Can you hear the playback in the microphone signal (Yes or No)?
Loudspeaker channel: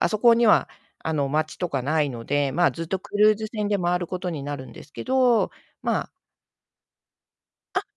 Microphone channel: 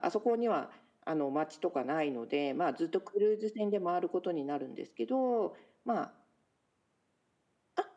Yes